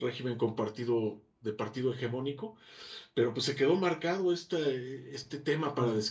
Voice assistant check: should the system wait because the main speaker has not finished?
Yes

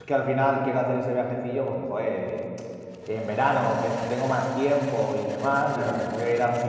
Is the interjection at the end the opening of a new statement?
No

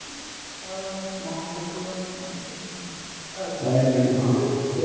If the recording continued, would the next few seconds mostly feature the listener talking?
Yes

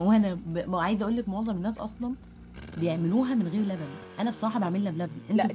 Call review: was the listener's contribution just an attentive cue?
No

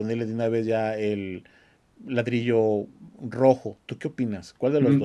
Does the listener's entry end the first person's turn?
Yes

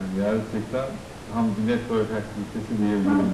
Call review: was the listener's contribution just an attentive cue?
No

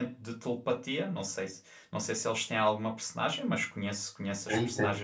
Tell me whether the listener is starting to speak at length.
Yes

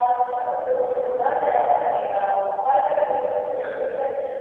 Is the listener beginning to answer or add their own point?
No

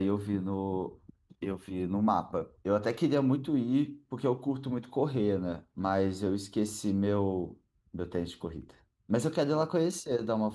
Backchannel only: Yes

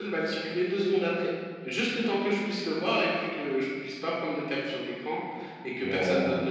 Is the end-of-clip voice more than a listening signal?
No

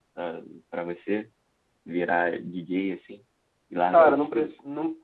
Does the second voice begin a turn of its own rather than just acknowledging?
Yes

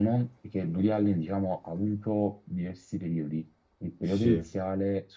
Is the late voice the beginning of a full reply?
No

